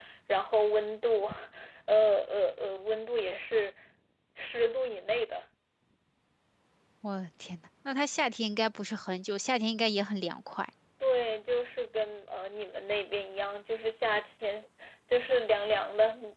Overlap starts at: none

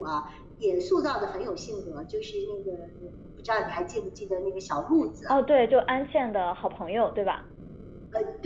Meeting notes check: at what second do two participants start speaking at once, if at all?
none

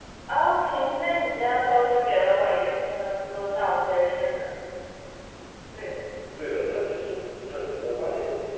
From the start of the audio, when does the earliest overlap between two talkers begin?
none

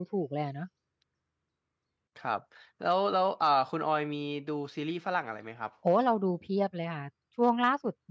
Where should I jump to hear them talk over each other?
none

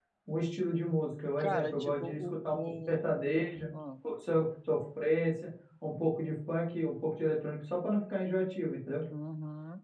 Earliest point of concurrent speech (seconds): 1.4 s

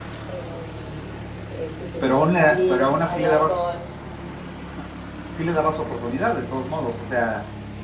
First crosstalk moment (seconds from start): 2.0 s

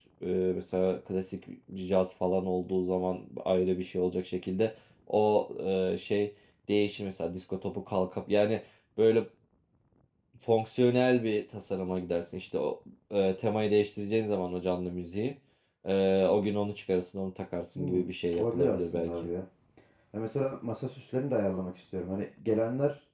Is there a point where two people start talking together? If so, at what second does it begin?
17.8 s

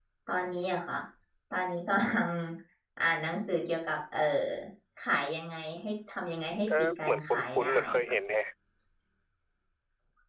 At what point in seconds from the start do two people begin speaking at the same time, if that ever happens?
6.7 s

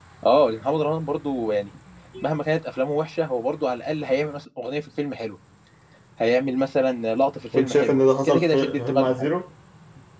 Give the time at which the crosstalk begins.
7.5 s

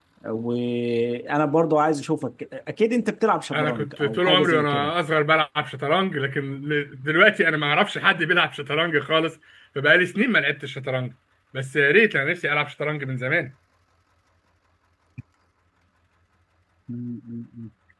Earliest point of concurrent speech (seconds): 3.5 s

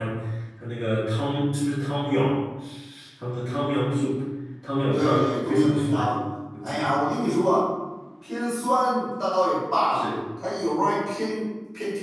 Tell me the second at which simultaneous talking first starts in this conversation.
4.9 s

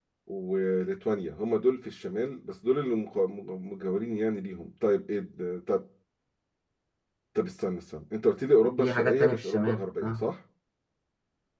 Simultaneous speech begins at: 8.8 s

